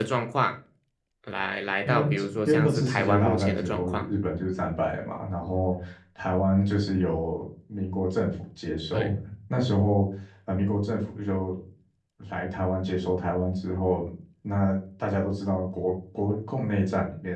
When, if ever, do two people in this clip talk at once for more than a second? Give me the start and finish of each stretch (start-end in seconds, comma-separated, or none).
2.5-4.0